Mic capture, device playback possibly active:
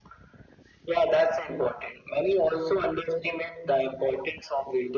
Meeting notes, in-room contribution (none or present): none